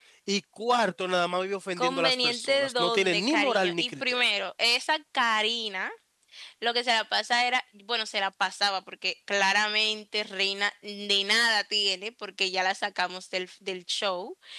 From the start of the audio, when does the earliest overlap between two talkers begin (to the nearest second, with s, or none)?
2 s